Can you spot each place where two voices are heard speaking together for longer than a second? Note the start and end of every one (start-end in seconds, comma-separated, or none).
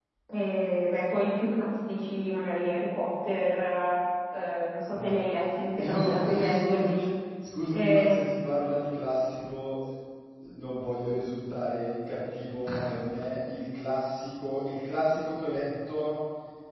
5.8-7.0